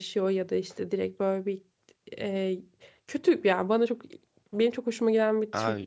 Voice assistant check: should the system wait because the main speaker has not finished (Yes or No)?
Yes